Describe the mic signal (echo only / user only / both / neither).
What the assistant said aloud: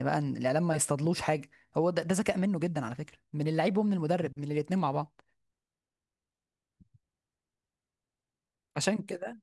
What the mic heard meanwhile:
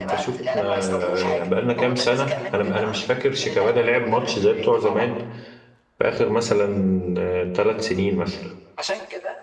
both